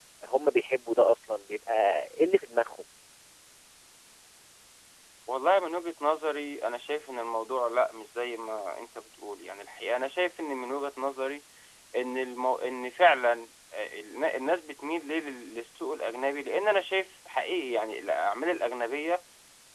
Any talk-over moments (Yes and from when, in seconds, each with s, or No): No